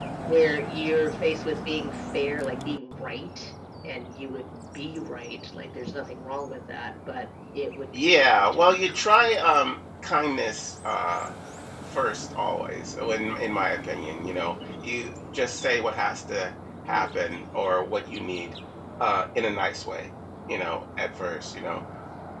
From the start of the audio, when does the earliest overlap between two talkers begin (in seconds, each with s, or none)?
8.0 s